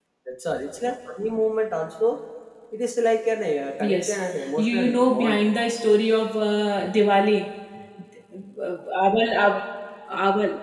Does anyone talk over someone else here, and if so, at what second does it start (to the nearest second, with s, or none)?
4 s